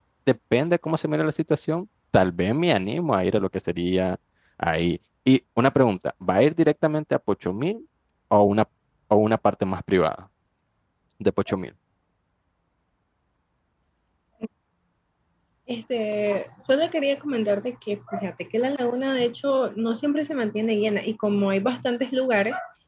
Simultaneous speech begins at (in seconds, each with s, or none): none